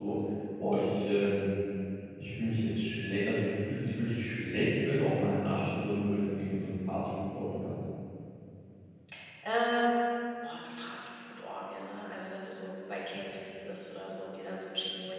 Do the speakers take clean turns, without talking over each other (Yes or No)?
Yes